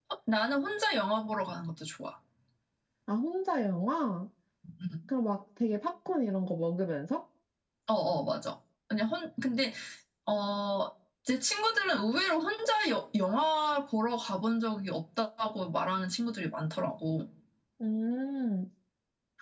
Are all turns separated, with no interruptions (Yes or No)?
Yes